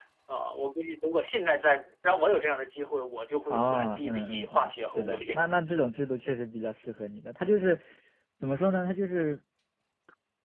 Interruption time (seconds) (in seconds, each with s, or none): 3.5 s